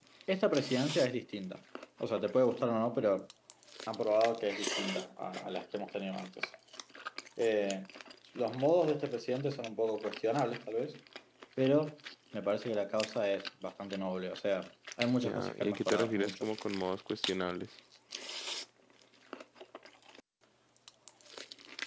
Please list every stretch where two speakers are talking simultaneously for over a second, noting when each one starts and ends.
15.2-16.5

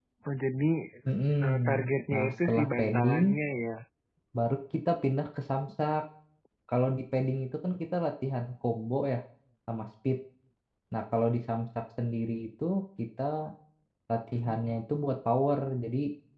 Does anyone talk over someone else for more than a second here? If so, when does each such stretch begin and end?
1.4-3.4

